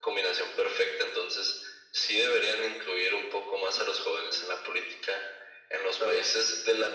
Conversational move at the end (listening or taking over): listening